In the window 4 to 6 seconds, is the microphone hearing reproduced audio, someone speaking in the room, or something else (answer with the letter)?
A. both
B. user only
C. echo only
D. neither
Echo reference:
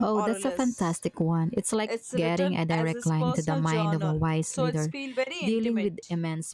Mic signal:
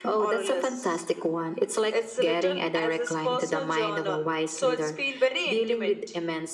C